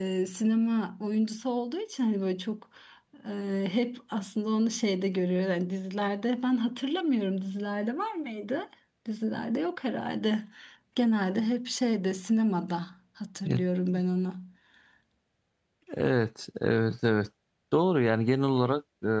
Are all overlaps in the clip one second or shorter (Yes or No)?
Yes